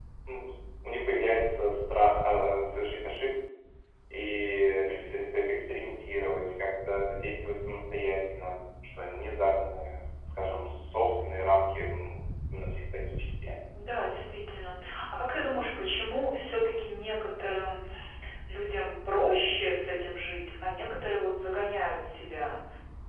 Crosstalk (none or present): none